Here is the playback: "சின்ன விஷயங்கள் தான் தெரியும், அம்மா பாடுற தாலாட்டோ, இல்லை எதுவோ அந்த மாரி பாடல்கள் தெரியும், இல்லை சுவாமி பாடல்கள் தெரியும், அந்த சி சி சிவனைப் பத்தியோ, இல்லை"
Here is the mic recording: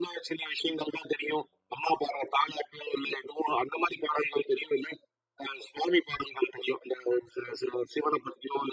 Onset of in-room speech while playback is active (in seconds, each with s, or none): none